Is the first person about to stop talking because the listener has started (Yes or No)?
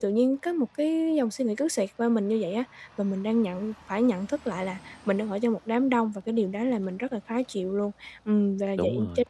No